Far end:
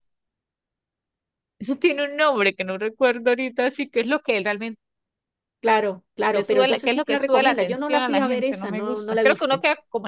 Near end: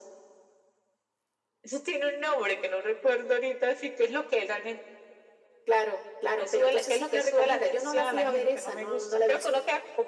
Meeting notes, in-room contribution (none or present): none